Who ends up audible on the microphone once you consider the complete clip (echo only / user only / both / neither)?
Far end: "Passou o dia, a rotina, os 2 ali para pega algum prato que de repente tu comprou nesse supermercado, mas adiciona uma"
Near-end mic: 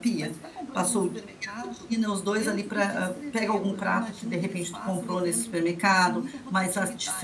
both